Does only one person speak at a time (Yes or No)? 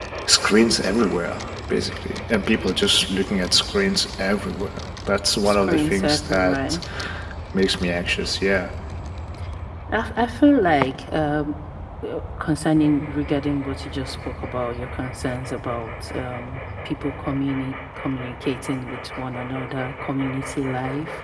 No